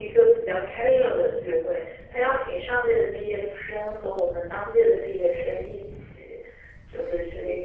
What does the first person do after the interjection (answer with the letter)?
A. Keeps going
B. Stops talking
A